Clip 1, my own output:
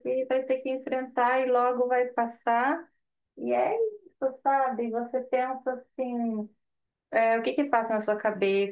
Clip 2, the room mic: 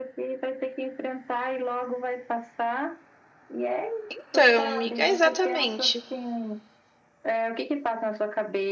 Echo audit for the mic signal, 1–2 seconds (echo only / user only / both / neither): echo only